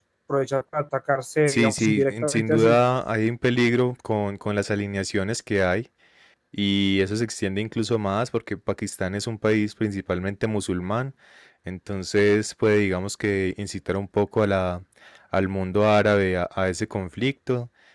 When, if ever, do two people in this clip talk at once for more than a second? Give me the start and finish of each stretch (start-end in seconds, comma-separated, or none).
1.5-2.8